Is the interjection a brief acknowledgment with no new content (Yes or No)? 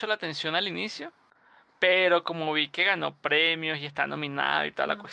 Yes